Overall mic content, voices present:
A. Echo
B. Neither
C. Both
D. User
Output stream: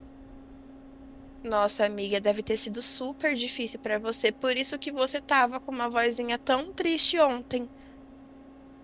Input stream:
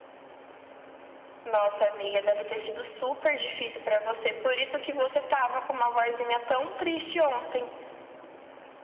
A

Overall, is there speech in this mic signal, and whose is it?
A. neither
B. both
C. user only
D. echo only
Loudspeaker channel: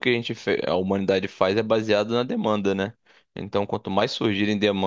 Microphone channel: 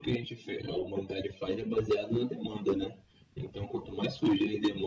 D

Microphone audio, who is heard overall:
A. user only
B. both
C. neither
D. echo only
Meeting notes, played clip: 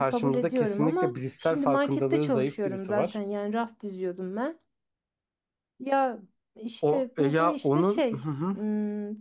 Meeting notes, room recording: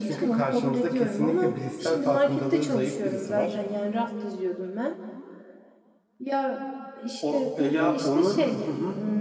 D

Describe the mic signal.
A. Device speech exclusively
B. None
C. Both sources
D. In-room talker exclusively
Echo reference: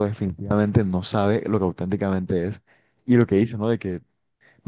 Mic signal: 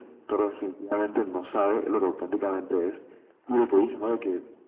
A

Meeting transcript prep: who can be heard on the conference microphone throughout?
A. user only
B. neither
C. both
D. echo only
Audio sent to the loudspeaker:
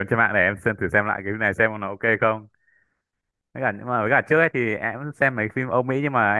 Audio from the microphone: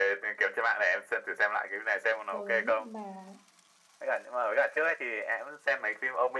C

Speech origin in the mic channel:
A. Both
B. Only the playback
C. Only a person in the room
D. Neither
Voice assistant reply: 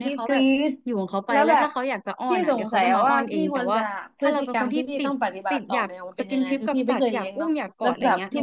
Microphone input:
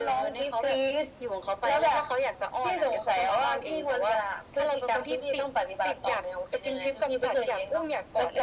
B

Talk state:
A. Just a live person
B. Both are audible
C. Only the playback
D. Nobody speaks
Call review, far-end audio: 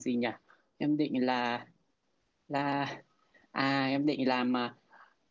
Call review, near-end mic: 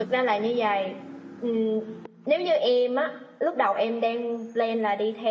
A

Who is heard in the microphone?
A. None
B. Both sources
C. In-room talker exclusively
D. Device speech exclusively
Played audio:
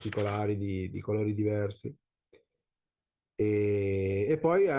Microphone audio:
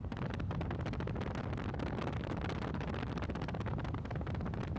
A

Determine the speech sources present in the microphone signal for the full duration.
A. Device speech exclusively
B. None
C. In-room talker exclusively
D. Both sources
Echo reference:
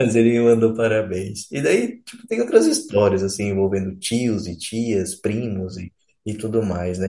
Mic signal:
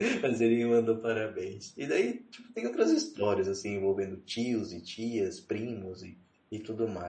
A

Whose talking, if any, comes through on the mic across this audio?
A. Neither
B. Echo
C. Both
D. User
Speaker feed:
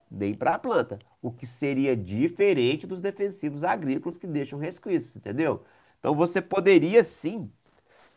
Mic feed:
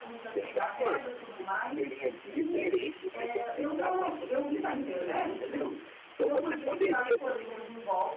C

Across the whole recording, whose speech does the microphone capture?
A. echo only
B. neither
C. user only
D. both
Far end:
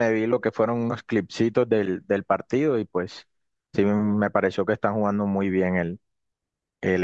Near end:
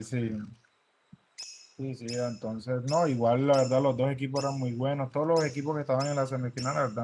C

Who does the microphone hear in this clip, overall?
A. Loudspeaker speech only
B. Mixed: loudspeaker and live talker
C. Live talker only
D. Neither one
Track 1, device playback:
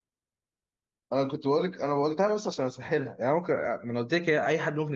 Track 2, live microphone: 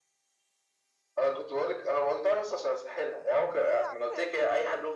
B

